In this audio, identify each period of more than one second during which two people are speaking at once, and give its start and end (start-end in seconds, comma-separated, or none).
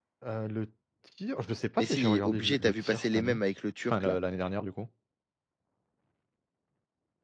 1.8-3.4